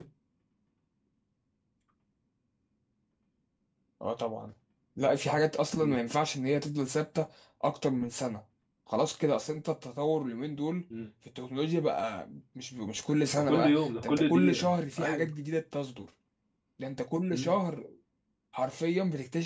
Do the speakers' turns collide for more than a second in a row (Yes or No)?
Yes